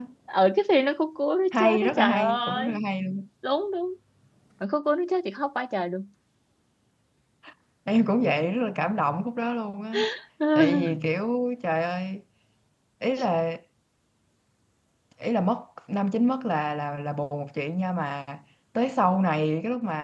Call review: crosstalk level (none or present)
present